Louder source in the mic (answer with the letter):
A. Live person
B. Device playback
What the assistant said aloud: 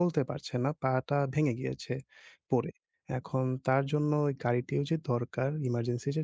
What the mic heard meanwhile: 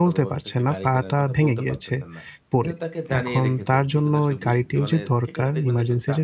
B